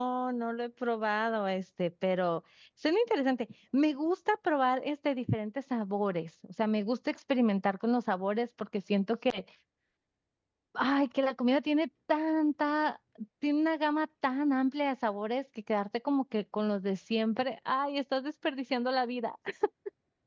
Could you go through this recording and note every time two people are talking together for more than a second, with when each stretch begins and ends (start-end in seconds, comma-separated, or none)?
none